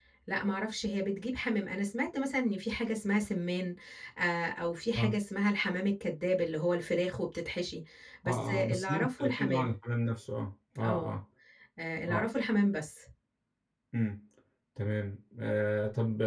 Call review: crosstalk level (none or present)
present